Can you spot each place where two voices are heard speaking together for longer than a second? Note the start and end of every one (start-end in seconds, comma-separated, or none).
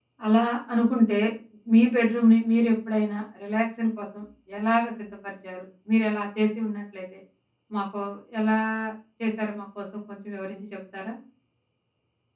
none